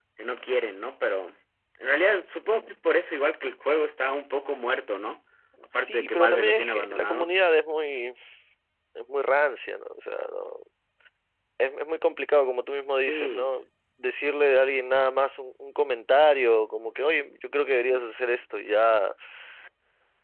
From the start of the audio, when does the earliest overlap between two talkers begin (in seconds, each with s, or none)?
5.7 s